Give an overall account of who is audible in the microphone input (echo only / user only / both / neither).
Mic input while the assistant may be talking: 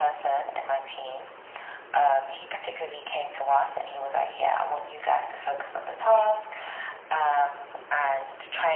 echo only